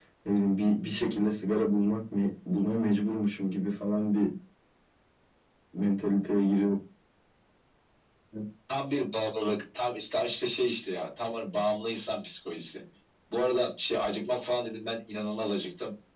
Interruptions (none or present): none